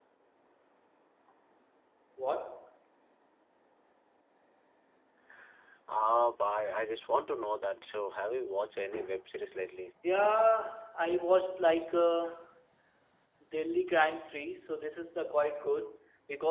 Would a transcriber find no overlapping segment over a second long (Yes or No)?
Yes